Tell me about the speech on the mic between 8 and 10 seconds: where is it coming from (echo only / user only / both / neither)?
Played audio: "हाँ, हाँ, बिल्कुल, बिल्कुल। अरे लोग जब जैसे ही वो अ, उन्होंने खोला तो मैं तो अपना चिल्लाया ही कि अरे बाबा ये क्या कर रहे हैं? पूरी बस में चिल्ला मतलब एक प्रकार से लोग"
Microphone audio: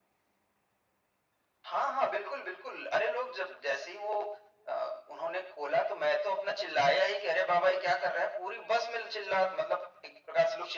echo only